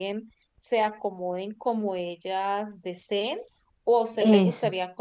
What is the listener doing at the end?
listening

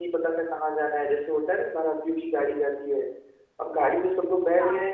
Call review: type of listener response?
listening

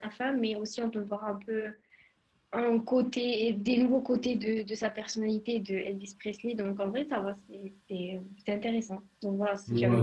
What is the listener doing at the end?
taking over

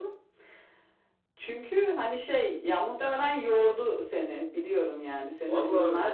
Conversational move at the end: taking over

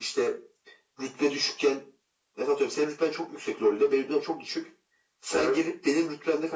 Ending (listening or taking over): listening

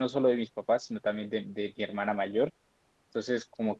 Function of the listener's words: listening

